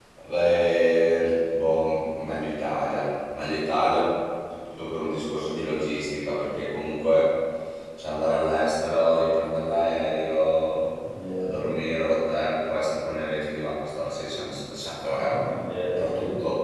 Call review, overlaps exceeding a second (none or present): none